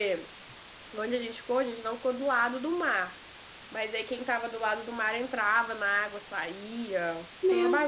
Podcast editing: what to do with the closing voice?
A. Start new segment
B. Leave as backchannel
A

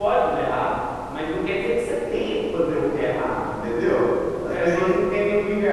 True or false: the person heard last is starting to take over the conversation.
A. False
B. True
A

